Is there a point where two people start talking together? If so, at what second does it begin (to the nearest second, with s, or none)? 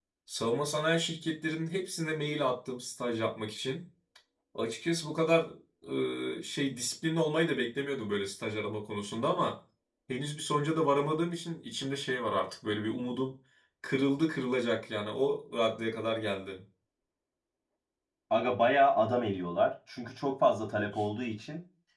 none